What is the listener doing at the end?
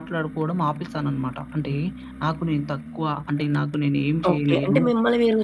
taking over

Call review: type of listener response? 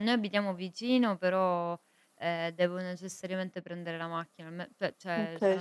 listening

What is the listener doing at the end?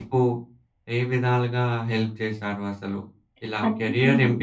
listening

